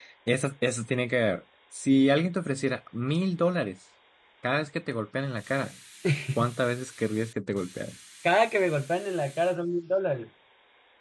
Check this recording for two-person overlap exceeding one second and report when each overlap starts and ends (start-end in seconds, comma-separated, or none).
none